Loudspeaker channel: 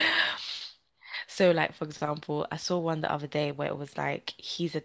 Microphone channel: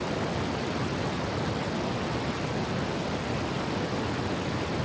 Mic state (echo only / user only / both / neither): neither